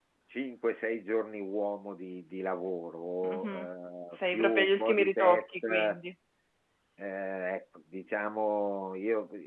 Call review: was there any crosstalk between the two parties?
Yes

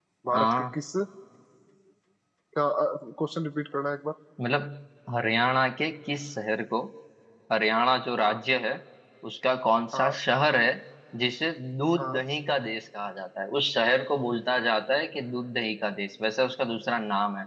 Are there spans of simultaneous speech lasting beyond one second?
No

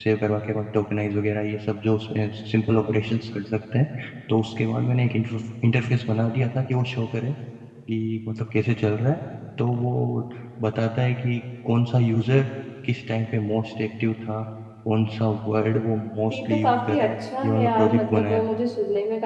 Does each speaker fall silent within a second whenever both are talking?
No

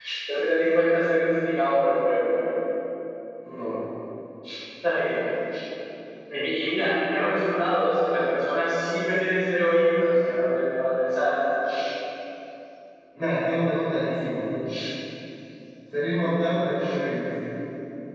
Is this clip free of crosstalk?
Yes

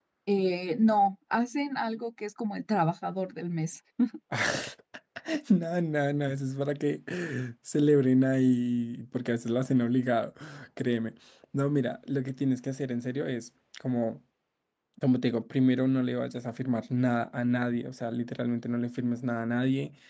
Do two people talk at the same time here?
No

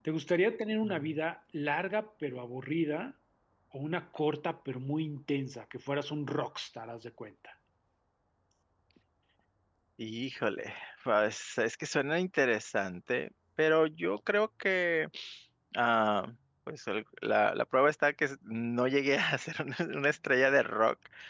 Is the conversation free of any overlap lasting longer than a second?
Yes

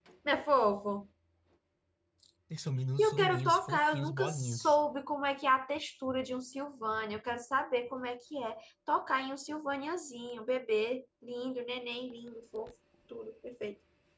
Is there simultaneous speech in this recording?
Yes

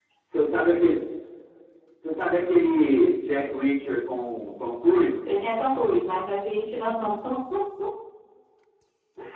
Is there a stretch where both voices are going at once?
No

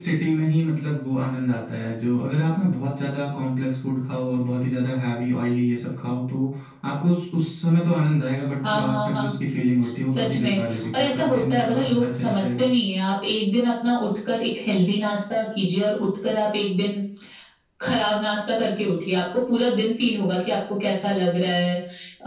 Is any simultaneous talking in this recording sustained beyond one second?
Yes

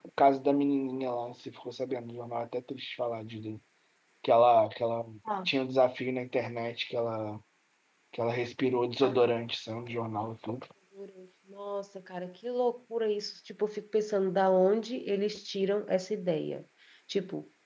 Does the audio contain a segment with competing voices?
No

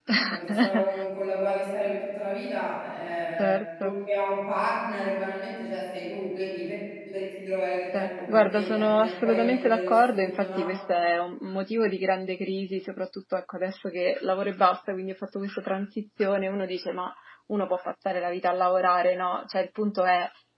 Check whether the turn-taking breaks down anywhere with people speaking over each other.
Yes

